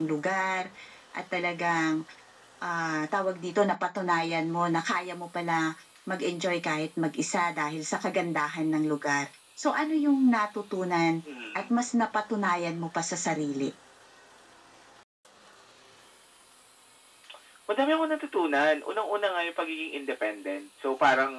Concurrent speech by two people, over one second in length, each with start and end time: none

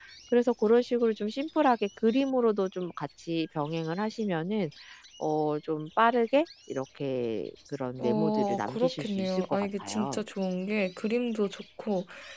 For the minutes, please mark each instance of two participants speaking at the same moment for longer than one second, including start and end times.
8.0-10.2

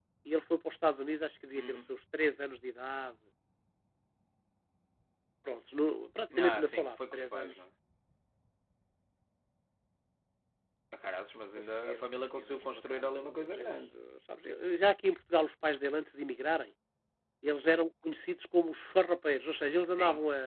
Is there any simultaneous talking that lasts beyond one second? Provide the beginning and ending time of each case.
6.4-7.6, 11.6-13.8

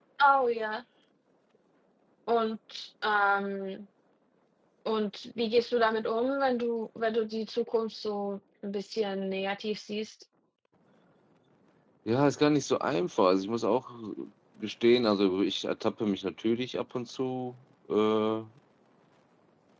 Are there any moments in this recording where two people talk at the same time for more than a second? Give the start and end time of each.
none

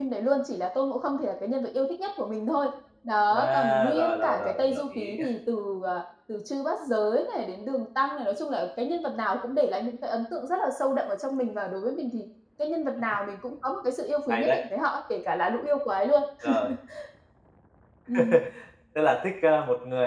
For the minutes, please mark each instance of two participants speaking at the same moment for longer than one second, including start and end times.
3.3-5.2

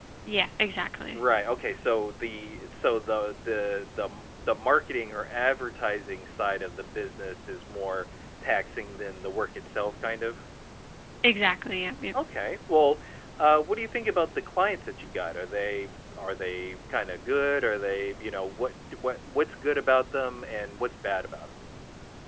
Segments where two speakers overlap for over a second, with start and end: none

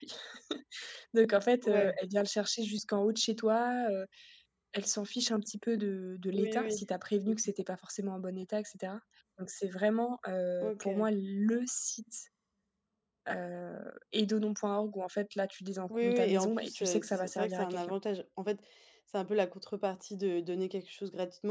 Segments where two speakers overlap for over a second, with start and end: 15.9-17.9

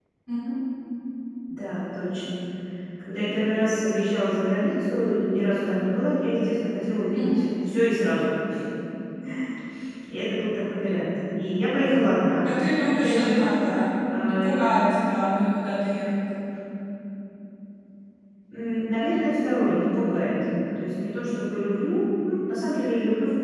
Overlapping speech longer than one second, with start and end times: none

